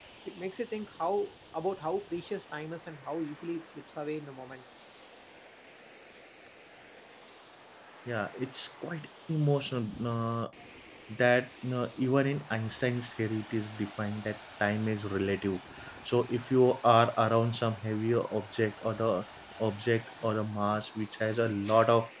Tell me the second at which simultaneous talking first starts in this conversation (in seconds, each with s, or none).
none